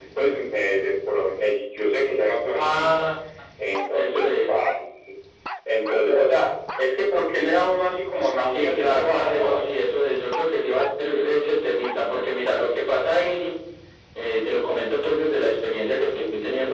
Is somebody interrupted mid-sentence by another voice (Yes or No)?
Yes